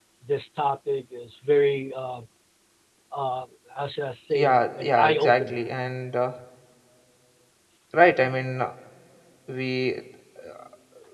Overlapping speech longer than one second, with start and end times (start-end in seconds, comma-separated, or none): 4.3-5.6